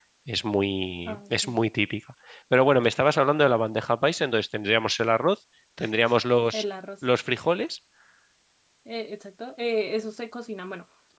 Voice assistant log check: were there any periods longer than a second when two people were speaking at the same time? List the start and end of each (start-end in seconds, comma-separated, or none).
none